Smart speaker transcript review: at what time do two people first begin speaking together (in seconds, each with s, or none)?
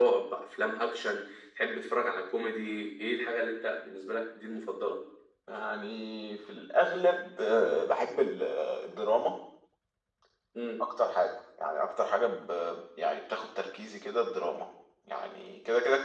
none